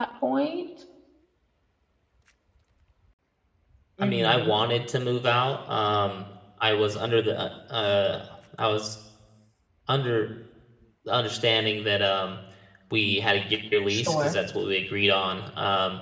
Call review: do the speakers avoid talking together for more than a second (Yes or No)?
Yes